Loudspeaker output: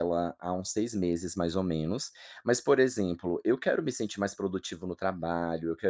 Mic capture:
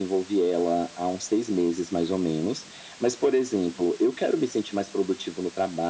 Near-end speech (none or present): none